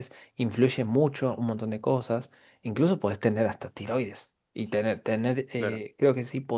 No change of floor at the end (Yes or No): Yes